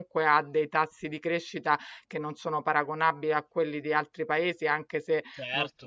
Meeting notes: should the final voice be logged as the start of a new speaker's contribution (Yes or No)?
No